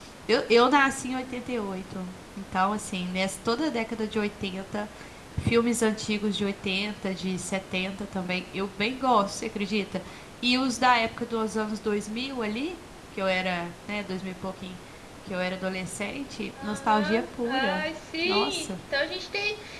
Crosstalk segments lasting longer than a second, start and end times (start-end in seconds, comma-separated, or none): 16.6-17.9